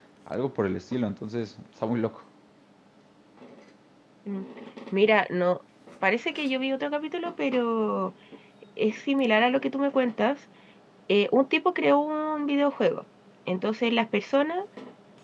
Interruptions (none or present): none